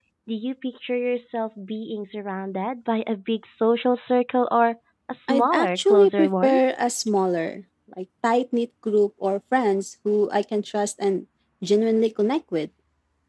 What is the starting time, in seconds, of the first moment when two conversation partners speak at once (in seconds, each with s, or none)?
5.3 s